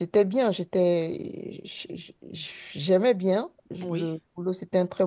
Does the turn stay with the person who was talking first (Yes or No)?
Yes